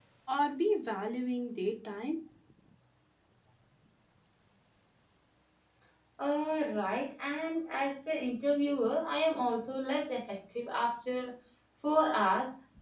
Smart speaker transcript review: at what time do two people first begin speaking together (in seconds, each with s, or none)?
none